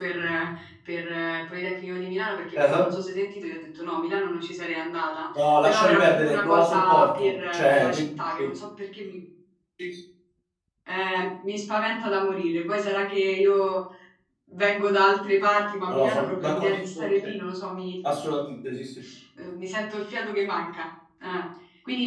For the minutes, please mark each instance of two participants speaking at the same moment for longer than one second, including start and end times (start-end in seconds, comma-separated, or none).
5.3-8.0, 15.8-17.1